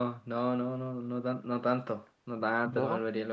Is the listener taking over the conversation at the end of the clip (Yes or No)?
No